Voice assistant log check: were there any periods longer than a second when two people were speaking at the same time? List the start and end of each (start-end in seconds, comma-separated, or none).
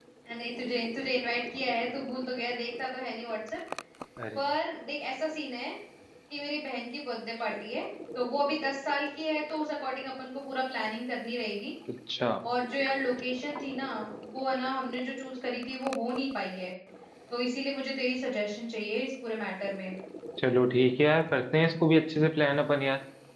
none